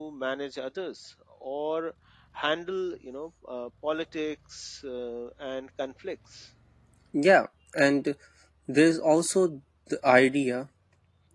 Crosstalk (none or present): none